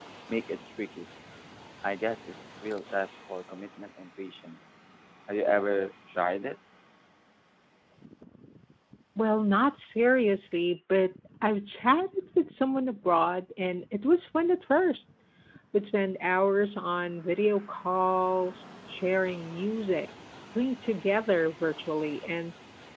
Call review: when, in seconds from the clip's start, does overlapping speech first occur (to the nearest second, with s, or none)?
none